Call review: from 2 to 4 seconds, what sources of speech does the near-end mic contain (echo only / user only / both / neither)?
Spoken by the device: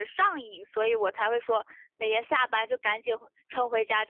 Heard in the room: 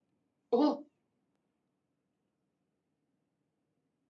neither